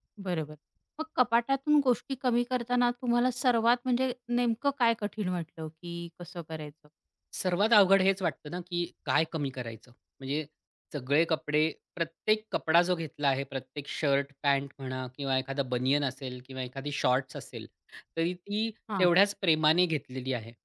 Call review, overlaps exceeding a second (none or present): none